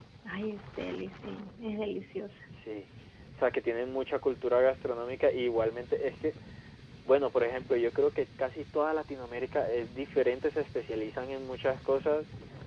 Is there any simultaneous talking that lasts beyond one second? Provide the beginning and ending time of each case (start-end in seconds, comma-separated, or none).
none